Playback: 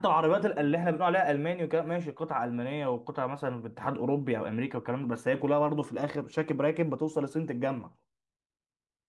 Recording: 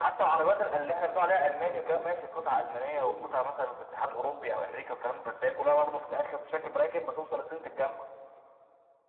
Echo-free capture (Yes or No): No